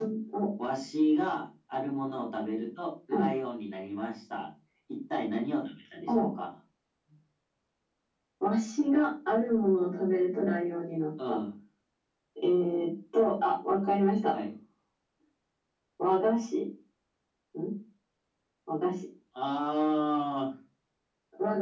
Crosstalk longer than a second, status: none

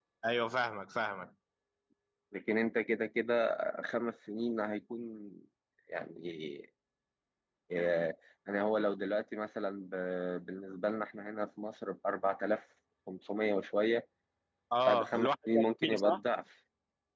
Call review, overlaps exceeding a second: present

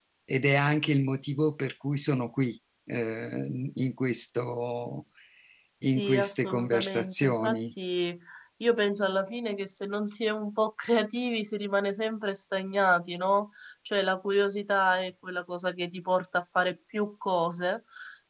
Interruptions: present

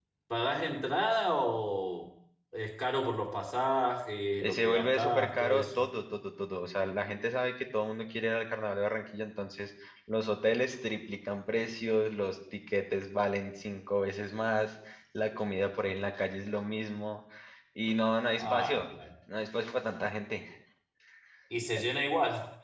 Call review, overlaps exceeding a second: present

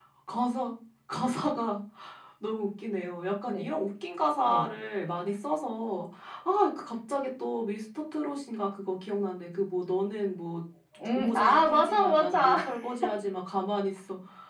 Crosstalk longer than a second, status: present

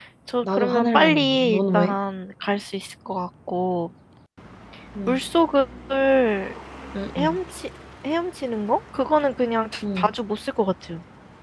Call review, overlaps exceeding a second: present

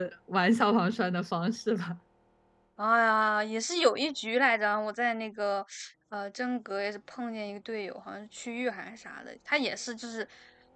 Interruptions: none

